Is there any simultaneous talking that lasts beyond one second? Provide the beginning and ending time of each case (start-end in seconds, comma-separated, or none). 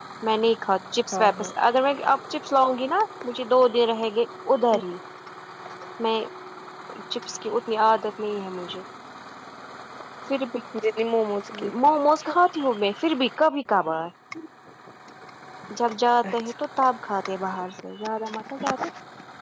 none